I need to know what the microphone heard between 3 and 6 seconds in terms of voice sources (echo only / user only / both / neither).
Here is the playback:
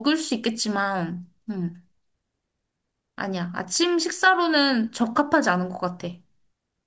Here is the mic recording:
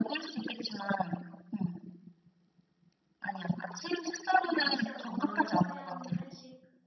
both